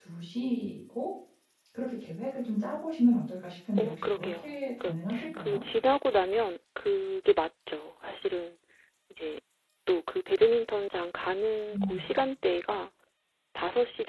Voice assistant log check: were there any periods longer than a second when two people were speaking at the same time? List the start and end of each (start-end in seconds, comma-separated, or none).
3.8-5.6